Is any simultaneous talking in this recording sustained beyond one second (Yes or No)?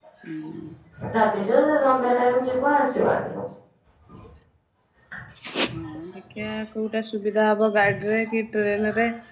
No